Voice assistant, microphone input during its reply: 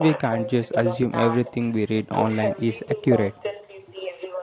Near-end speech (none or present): present